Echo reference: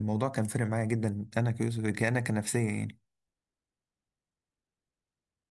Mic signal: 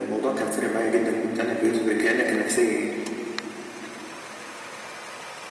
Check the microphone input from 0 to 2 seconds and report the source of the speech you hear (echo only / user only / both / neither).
echo only